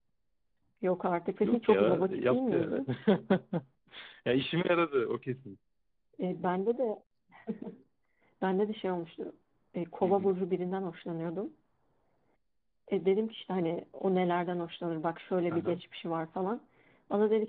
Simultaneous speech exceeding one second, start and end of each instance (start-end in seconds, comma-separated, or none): 1.4-2.8